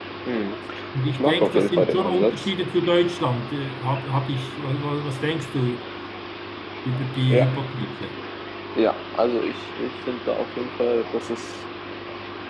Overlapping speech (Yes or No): Yes